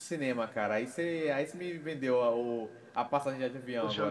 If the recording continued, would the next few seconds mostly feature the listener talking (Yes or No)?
Yes